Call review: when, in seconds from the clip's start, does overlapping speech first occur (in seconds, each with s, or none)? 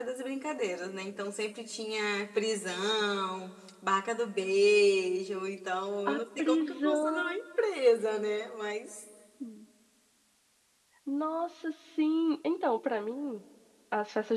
6.0 s